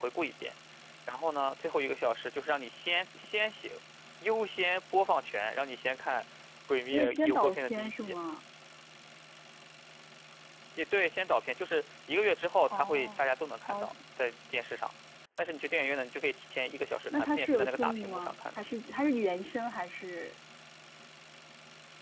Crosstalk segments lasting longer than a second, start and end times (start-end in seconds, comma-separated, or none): 6.9-8.2, 17.1-18.6